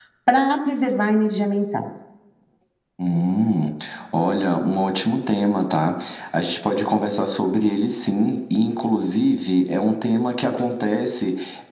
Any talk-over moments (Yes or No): No